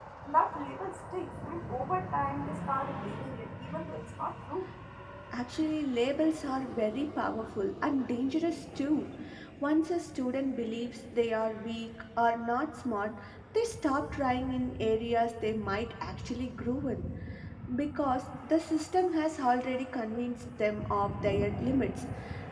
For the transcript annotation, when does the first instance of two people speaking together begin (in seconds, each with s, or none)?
none